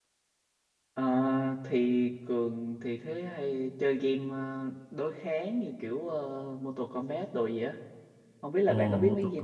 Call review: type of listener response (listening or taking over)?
taking over